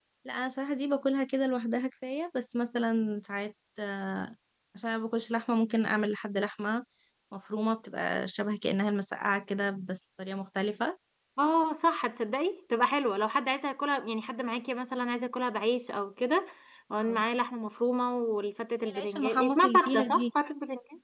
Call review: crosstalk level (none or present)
present